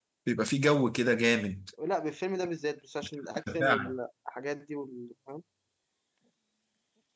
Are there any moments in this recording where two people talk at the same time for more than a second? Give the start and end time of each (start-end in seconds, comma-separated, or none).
none